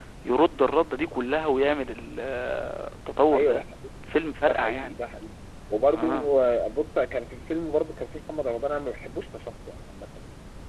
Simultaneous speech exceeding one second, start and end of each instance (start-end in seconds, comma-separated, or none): none